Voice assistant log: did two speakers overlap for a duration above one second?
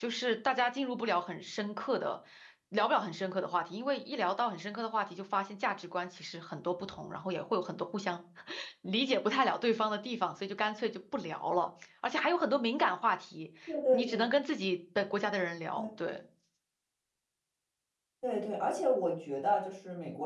No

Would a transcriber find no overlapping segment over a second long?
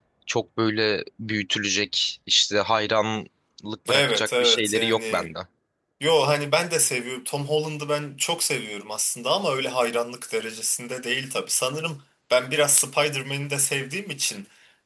No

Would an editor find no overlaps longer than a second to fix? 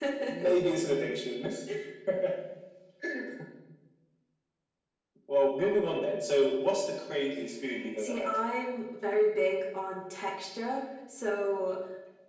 Yes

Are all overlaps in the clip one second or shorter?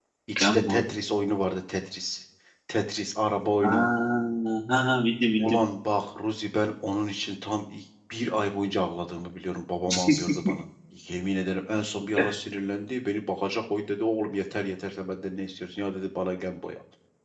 Yes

